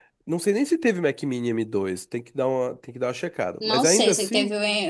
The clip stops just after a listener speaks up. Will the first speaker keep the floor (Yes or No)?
No